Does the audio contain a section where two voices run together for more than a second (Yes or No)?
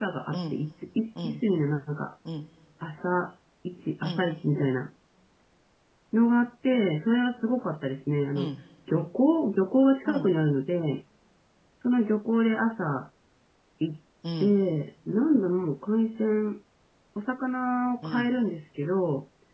No